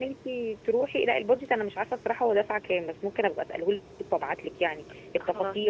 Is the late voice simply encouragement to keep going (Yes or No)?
Yes